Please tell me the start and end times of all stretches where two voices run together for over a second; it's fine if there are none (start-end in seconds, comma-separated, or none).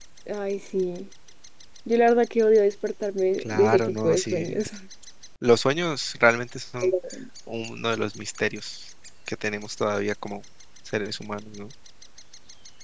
3.4-4.7